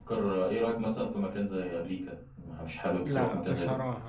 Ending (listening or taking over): taking over